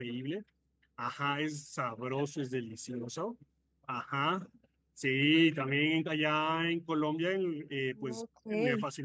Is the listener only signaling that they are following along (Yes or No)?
Yes